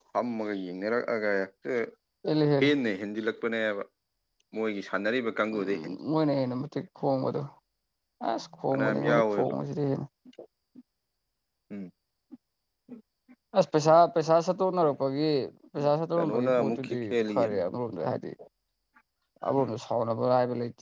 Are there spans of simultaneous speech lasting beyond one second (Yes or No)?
Yes